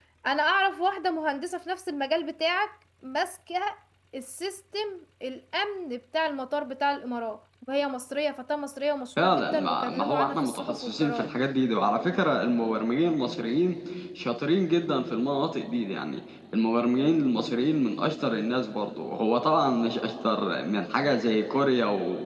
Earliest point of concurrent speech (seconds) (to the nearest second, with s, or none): 9 s